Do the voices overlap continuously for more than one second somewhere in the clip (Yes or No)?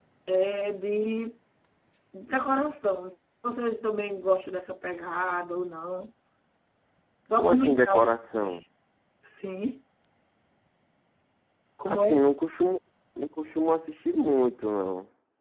Yes